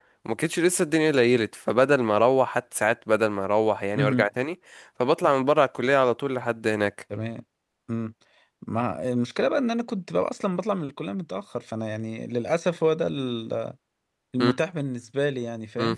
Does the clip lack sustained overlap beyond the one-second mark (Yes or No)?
Yes